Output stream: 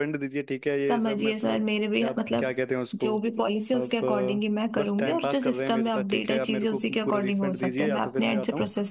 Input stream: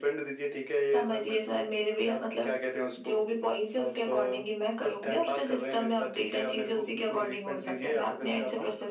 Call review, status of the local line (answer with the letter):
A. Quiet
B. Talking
A